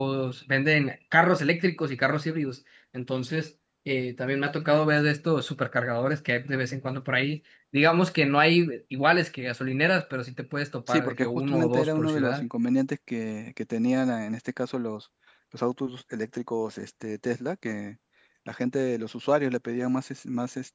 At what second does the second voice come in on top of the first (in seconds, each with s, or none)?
10.9 s